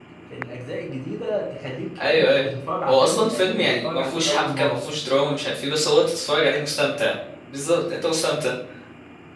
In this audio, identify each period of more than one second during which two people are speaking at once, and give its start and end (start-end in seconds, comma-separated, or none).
2.9-4.8